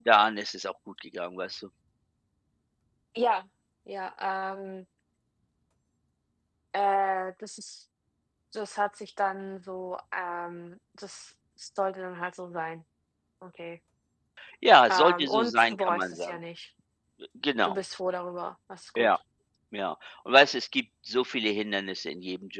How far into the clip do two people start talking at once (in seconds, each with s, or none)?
14.9 s